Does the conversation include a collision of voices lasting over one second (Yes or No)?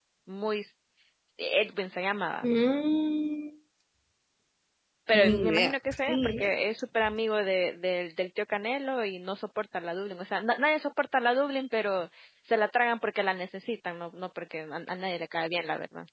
Yes